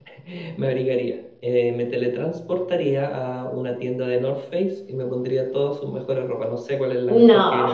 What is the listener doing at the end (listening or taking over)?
listening